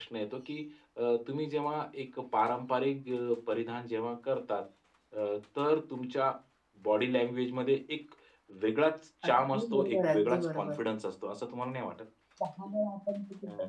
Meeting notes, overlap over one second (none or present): present